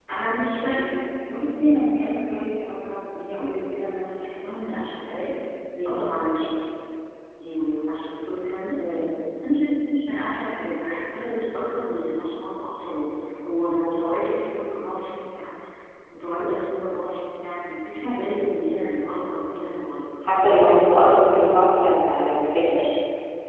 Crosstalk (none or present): none